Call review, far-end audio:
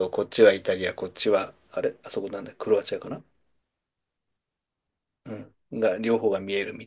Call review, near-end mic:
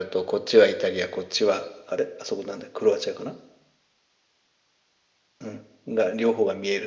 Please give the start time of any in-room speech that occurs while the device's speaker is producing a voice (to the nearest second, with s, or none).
none